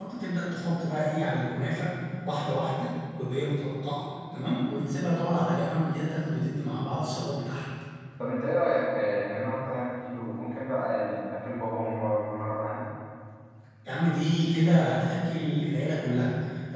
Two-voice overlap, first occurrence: none

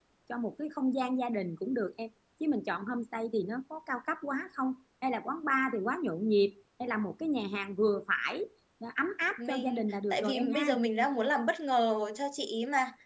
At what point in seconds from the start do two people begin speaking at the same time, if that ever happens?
9 s

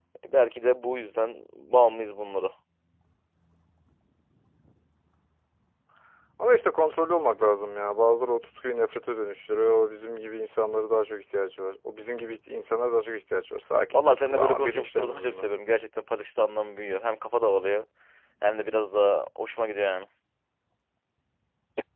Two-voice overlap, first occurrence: 14 s

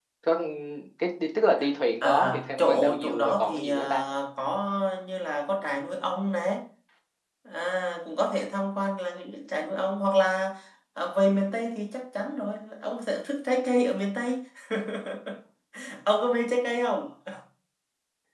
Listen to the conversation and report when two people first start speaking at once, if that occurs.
2 s

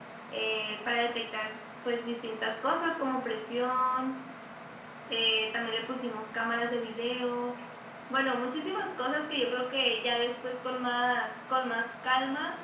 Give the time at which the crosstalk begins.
none

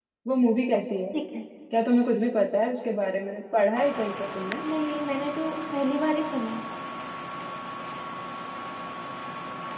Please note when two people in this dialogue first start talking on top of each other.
none

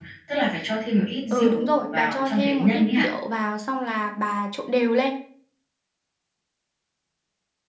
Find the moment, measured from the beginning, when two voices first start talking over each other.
1 s

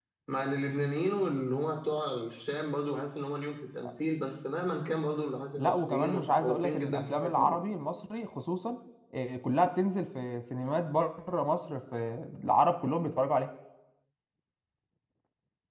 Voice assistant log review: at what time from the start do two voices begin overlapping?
6 s

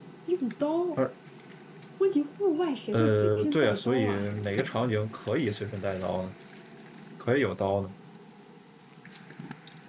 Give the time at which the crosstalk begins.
3 s

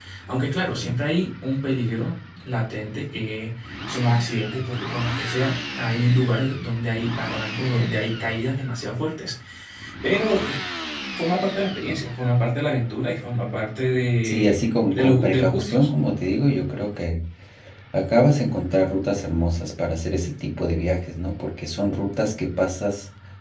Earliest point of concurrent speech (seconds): 14 s

